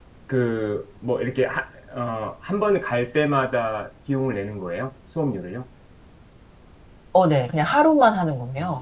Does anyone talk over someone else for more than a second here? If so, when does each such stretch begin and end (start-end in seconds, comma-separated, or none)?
none